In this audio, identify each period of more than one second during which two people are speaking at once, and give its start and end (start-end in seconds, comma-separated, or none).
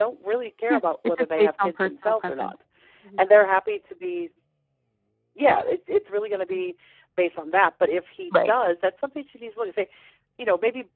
0.7-2.5